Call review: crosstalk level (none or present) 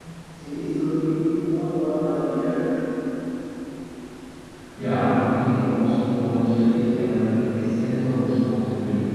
none